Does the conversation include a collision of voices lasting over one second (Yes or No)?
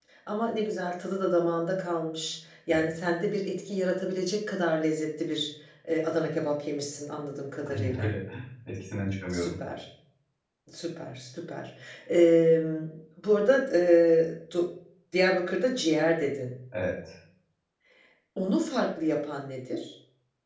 No